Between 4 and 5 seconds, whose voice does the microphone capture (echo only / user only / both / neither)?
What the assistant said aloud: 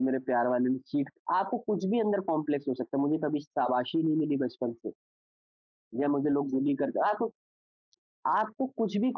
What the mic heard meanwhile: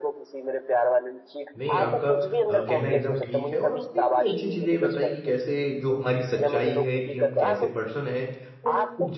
both